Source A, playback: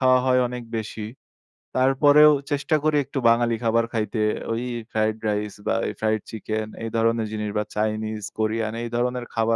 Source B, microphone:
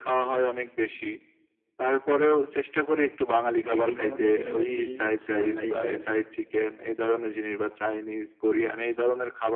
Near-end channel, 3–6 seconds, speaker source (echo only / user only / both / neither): both